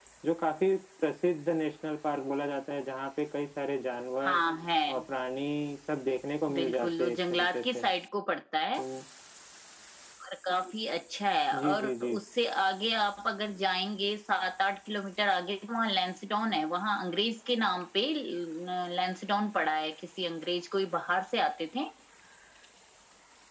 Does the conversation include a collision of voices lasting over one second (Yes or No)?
Yes